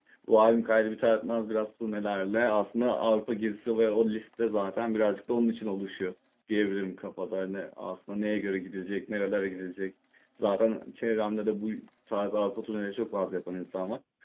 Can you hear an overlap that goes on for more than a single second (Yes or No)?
No